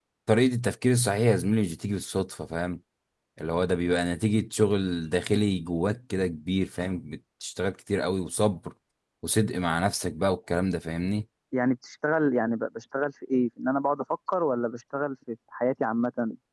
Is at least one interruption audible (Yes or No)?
No